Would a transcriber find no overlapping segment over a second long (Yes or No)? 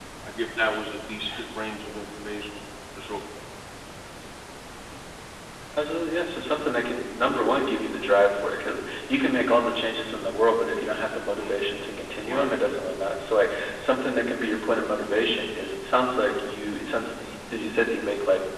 Yes